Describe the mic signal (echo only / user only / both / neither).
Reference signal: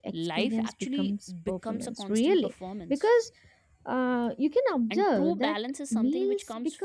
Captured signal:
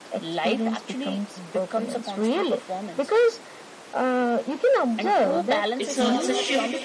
both